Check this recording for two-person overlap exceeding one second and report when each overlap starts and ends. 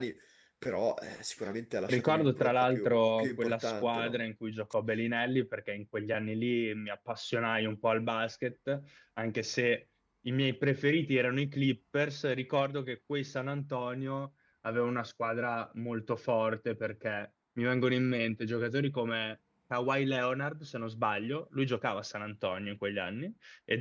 1.9-4.2

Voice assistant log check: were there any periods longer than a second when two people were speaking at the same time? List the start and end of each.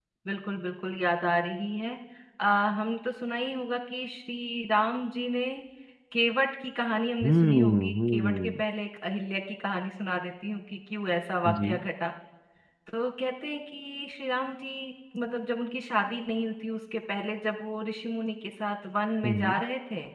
7.3-8.6

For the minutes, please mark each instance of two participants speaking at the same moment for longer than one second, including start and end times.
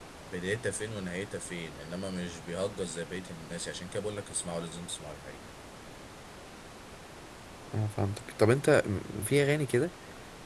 none

